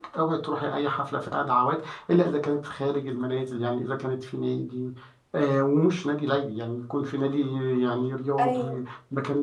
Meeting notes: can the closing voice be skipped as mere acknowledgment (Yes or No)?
Yes